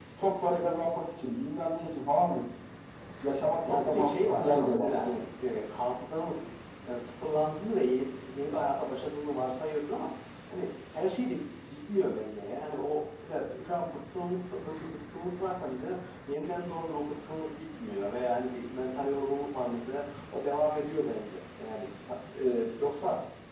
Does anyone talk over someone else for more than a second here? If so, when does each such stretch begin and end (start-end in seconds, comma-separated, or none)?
3.6-5.2